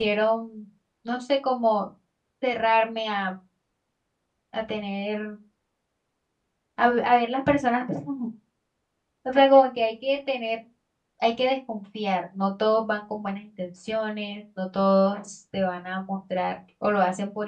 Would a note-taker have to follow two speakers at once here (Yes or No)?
No